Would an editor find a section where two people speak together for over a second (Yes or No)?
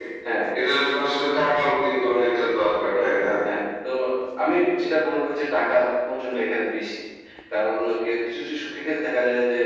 No